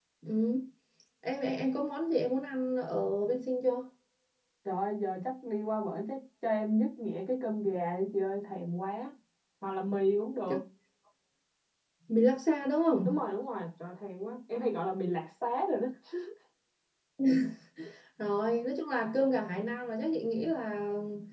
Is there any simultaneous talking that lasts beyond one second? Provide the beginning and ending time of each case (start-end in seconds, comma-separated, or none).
none